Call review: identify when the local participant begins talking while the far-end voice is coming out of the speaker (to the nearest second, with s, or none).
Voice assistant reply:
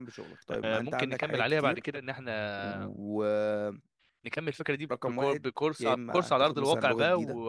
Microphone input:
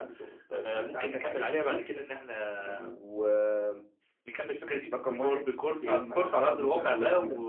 none